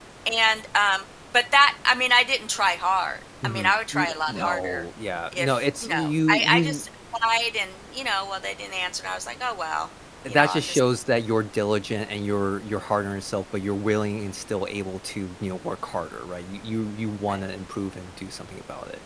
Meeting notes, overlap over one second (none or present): present